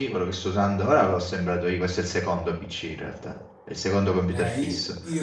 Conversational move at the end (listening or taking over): taking over